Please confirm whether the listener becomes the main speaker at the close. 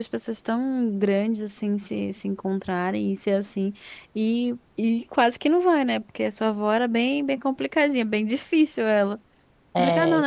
Yes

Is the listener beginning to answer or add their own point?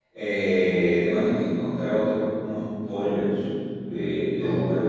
No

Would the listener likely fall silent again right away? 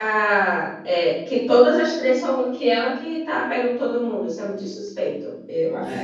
No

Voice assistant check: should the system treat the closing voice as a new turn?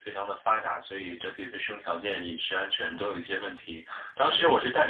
No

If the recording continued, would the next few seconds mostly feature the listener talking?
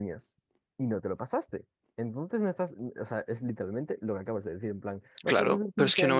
Yes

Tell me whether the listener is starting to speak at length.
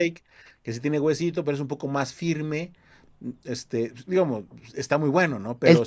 Yes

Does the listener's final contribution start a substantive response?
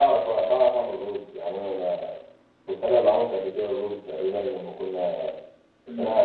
No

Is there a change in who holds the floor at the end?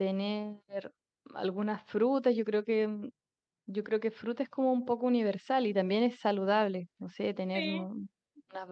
No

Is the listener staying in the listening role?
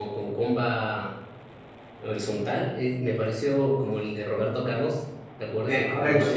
No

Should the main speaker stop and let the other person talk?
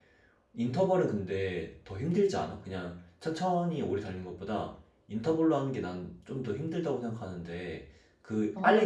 No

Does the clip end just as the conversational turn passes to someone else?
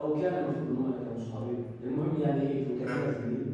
No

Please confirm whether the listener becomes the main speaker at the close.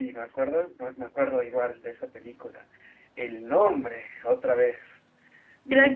Yes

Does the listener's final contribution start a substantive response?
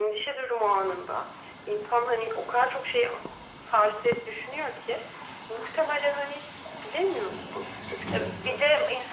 Yes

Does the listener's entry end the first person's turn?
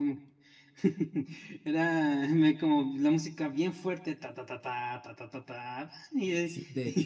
Yes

